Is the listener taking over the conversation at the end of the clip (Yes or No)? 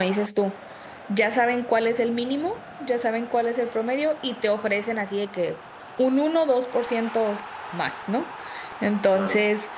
No